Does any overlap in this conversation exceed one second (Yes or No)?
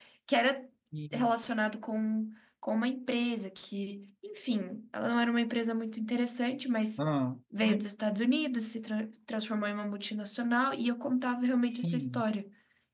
No